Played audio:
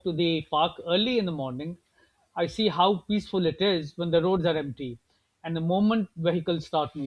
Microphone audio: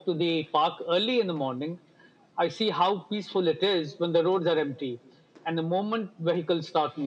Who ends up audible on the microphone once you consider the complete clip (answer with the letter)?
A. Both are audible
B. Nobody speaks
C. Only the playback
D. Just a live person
C